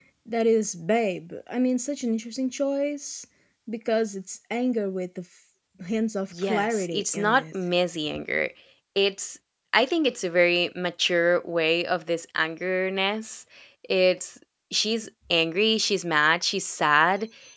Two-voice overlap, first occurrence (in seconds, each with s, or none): 6.3 s